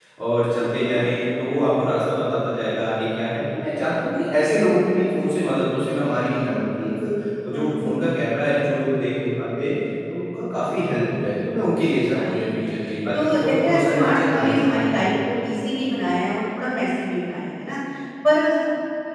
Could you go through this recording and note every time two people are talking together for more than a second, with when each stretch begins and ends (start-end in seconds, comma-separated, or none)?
13.1-14.9